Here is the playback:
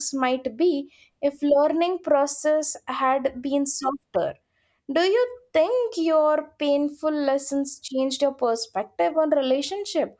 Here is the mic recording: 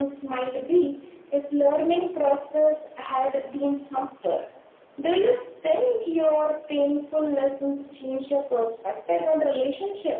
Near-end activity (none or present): none